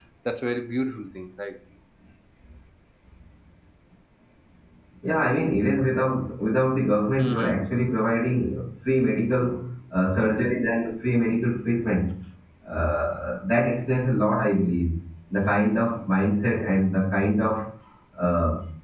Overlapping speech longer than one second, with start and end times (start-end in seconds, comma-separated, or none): none